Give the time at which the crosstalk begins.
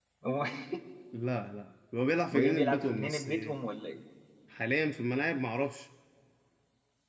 2.3 s

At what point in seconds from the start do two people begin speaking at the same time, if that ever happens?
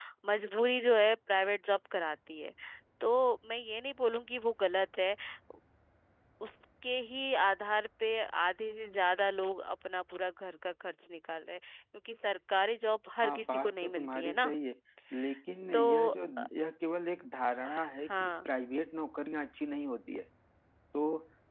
13.2 s

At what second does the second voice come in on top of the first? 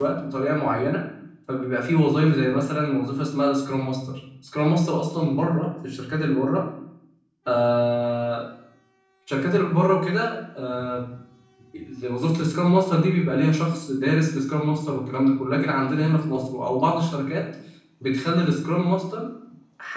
none

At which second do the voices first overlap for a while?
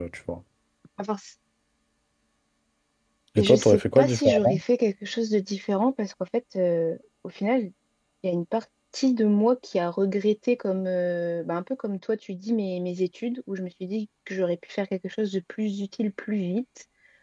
3.4 s

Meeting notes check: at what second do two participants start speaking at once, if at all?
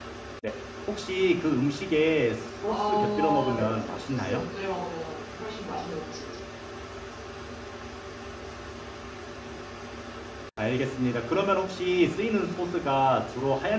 2.7 s

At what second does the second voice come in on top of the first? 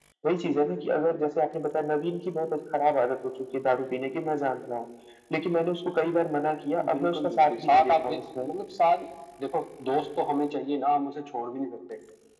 6.7 s

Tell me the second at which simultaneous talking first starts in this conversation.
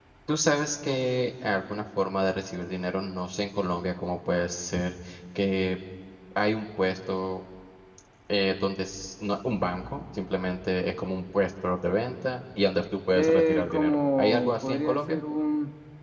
13.1 s

